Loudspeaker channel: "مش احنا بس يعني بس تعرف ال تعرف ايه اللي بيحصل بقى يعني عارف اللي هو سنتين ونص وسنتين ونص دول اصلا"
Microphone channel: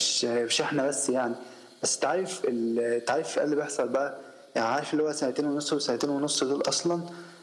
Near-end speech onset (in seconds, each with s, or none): none